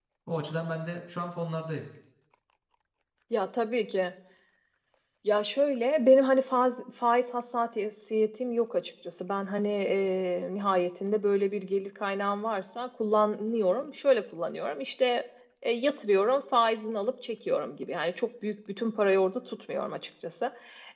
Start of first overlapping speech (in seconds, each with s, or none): none